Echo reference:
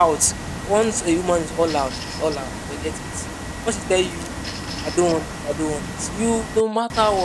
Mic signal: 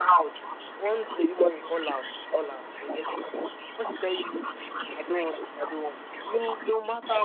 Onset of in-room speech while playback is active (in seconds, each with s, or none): none